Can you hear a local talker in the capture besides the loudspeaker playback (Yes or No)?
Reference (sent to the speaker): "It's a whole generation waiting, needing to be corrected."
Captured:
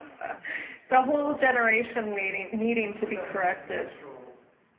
Yes